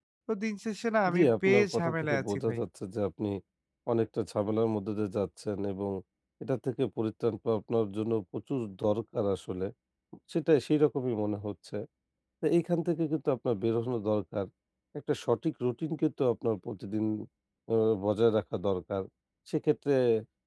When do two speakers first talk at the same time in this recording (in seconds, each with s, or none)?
1.1 s